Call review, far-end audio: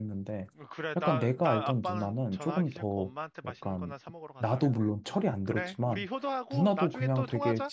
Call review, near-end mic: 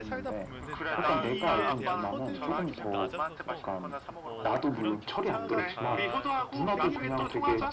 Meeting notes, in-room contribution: present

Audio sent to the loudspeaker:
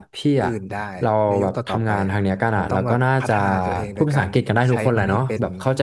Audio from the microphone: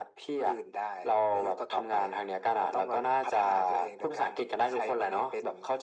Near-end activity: none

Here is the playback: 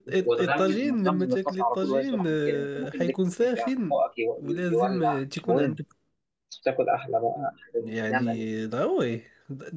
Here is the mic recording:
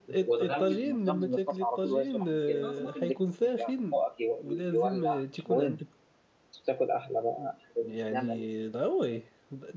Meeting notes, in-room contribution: present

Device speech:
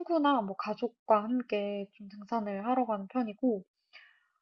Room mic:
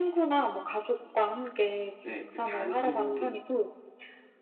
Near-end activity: present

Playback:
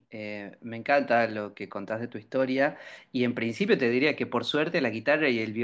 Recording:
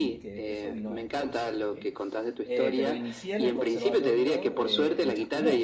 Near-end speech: present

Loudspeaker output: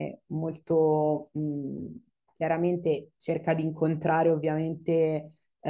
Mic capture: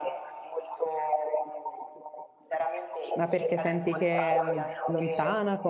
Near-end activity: present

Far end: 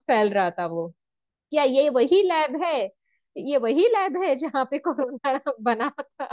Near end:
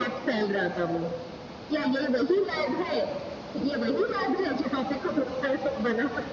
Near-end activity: none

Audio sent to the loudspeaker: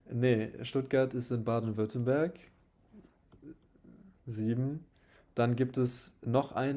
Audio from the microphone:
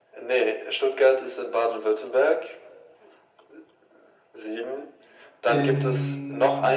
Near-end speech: present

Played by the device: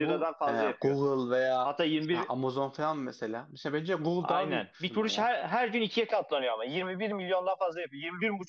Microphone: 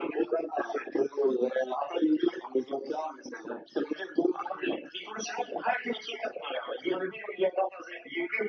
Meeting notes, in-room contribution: none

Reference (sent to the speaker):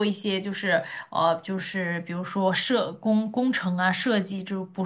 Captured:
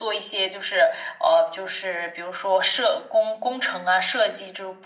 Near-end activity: none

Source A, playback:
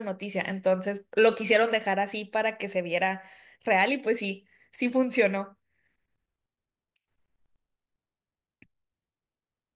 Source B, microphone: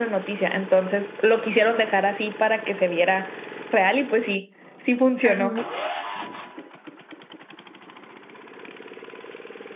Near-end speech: present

